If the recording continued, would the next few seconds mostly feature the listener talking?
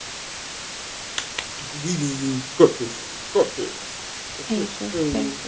Yes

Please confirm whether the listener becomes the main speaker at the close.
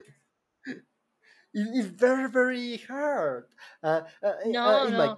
No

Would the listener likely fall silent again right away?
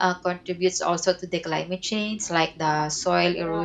Yes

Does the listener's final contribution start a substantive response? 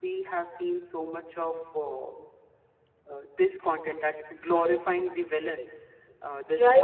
Yes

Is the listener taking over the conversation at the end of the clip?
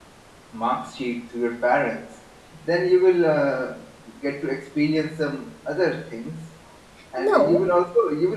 No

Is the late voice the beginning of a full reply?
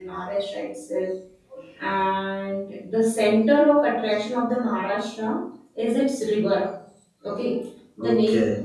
No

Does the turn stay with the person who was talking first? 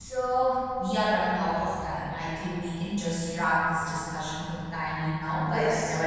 Yes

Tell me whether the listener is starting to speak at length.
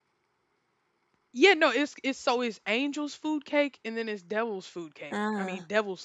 No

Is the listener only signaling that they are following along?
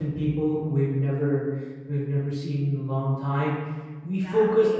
Yes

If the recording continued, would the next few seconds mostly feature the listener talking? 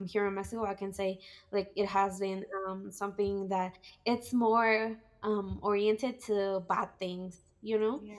No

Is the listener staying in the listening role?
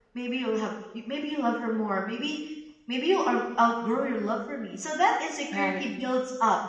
Yes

